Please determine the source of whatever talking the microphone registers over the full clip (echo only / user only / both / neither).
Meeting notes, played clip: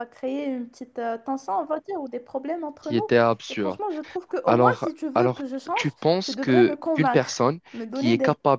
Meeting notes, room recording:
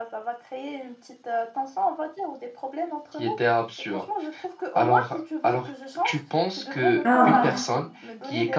both